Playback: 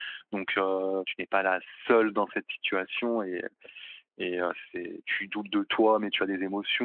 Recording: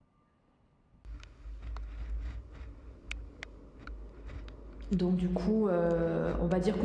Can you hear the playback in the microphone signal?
No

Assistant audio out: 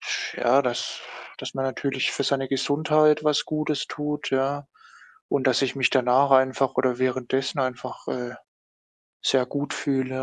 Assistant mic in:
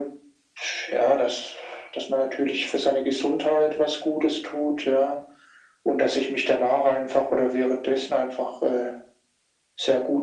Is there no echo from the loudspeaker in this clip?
No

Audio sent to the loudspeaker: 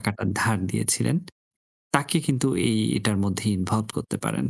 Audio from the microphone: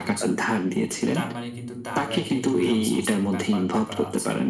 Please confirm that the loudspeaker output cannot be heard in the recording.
No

